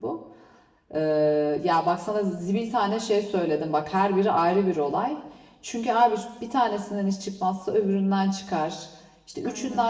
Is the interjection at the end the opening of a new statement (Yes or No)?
No